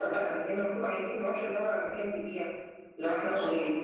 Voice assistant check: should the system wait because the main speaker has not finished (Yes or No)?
No